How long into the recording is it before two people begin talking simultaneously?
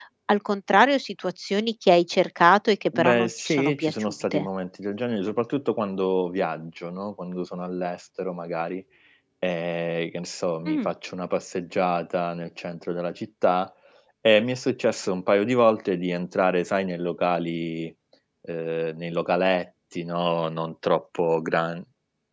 2.9 s

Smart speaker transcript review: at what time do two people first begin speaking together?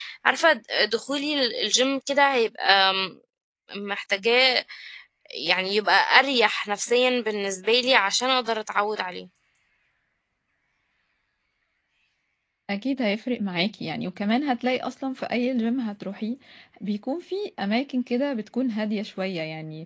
none

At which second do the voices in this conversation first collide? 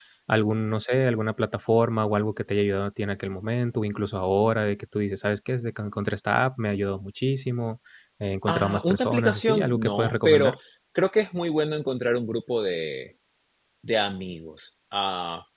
8.5 s

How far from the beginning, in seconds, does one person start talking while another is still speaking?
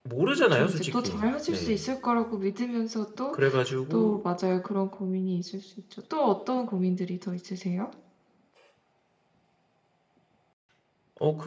0.5 s

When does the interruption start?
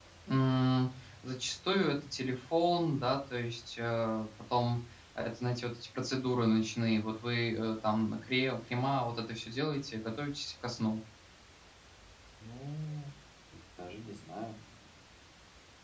none

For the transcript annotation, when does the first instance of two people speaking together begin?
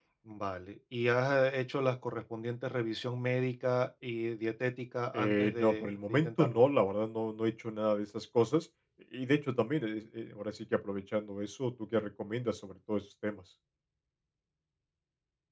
5.1 s

